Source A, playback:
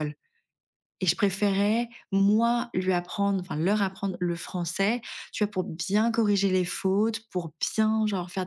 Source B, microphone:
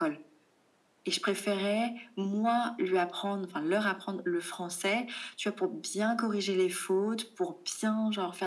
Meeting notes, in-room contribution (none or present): none